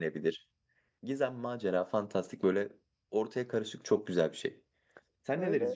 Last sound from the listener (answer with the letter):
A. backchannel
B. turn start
B